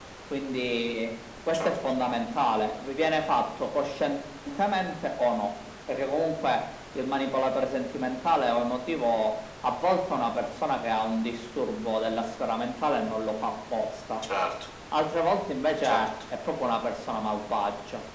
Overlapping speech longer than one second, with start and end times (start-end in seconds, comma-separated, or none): none